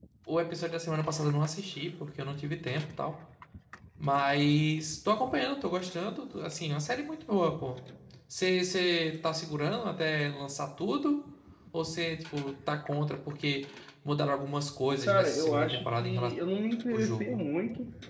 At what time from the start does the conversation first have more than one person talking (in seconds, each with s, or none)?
15.0 s